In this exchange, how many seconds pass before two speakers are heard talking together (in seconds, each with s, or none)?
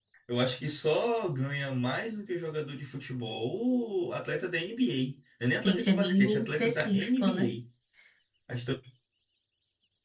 5.6 s